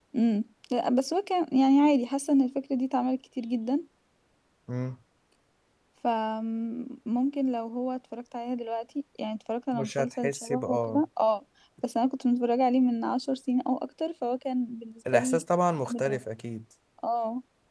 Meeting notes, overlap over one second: present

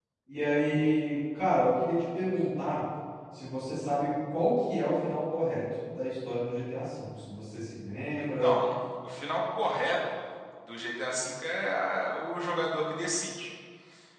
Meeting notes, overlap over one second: none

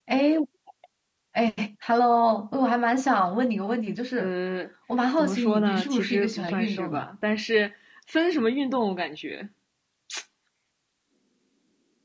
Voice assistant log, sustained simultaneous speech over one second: present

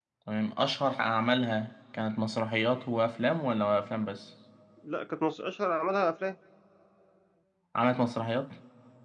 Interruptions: none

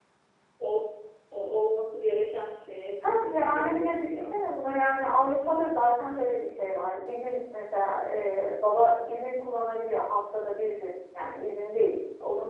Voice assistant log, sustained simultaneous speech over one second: present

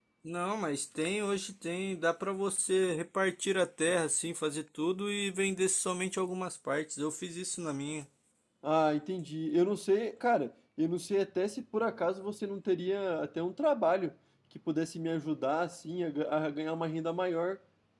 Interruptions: none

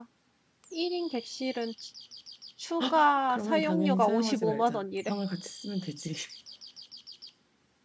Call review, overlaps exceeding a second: present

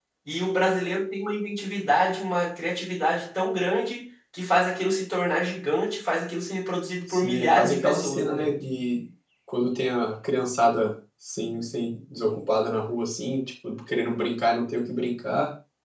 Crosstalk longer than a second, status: present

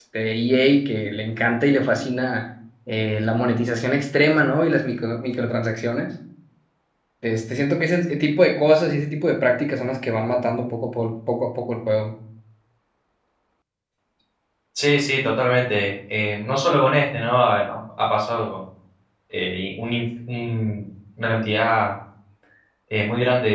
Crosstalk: none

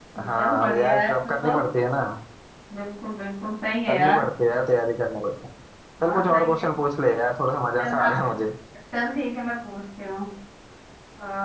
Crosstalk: present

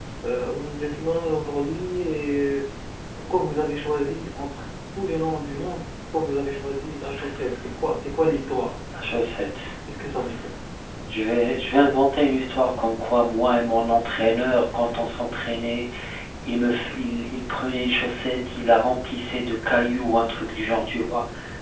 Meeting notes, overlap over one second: none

